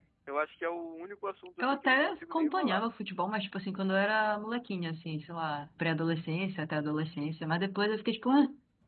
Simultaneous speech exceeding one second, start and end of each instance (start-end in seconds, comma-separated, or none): 1.6-2.8